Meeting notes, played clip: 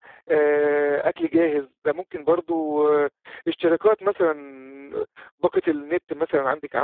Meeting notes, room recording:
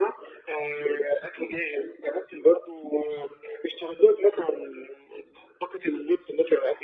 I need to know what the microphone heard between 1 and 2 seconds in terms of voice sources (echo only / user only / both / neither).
echo only